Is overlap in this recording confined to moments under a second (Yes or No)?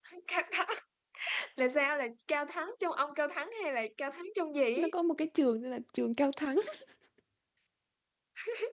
Yes